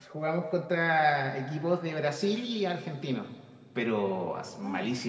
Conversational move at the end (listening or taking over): listening